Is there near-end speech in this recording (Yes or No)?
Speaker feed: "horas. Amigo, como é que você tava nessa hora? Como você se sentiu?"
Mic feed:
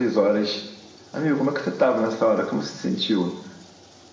No